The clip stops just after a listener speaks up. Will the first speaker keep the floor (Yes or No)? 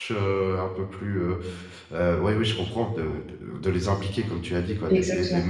Yes